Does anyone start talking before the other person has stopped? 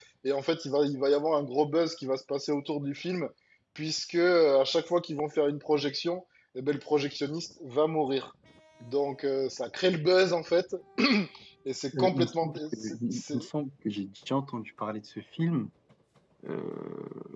Yes, from 12.0 s

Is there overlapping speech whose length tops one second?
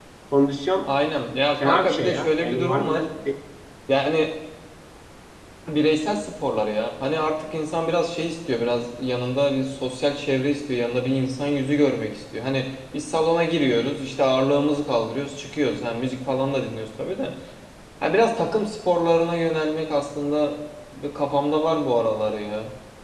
Yes, from 1.6 s

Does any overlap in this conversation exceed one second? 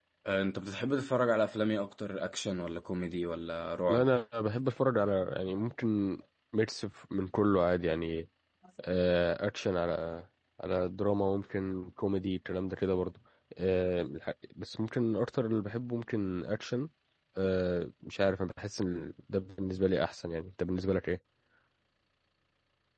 No

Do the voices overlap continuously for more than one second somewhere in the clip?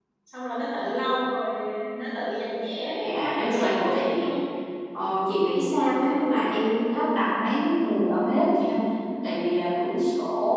Yes, from 3.0 s

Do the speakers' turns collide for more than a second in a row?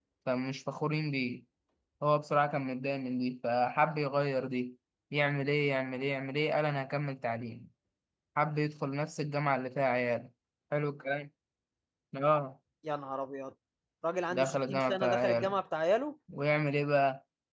Yes, from 14.3 s

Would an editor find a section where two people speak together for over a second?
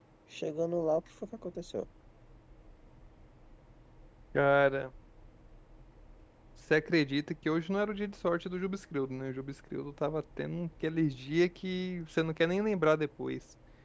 No

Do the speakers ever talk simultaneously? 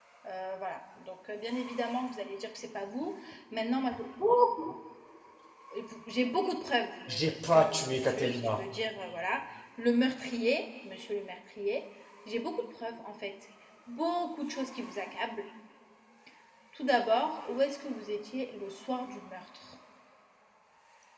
Yes, from 7.1 s

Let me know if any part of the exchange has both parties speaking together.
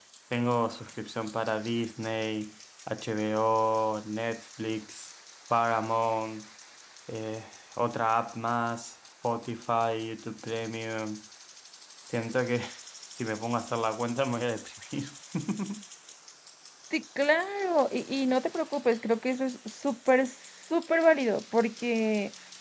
No

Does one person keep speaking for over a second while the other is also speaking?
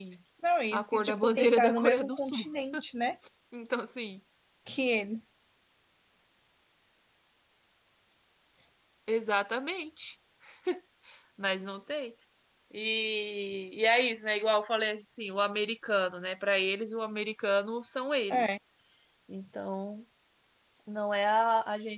Yes, from 0.7 s

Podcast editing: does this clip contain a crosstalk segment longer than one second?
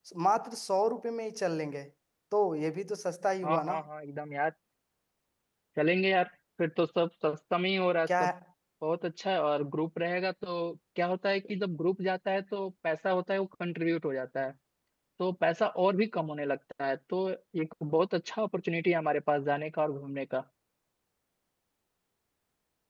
No

